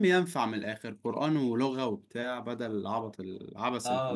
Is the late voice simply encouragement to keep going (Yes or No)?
No